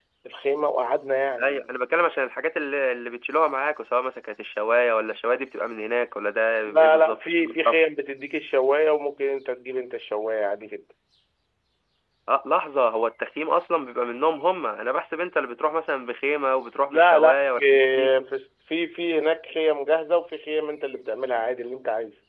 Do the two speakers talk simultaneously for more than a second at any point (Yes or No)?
Yes